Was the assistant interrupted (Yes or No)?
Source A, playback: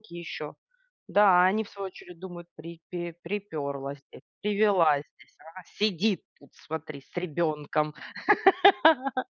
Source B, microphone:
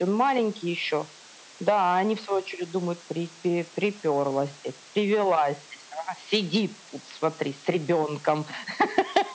No